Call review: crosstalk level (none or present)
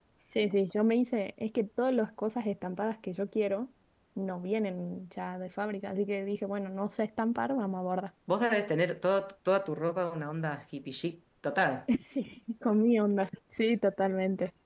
none